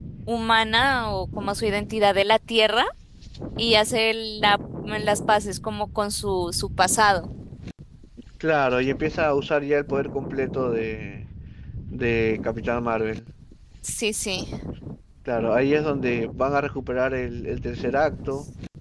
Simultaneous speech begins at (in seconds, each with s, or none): none